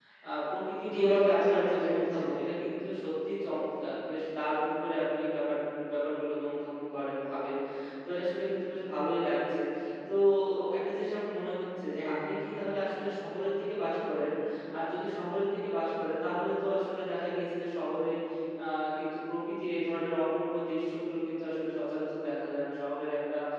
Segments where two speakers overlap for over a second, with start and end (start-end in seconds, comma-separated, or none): 0.9-2.2